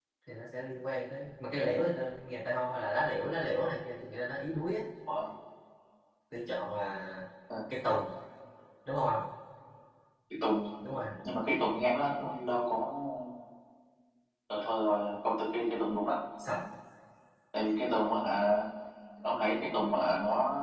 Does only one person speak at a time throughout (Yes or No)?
Yes